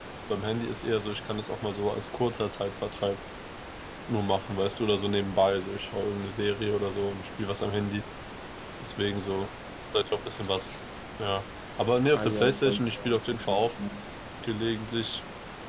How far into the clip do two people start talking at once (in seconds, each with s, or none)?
12.1 s